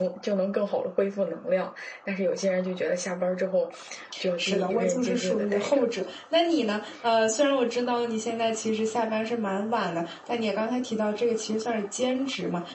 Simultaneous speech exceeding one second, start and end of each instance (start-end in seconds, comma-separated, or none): 4.4-5.8